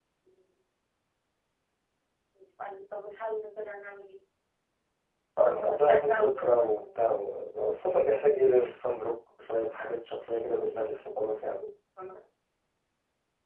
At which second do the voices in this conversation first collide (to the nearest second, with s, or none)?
5 s